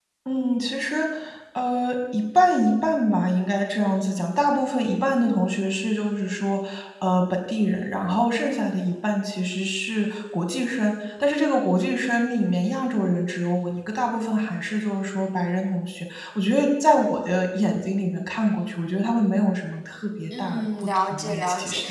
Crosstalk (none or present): present